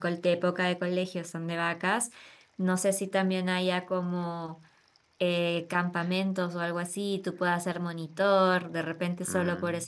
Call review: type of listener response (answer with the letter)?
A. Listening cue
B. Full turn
A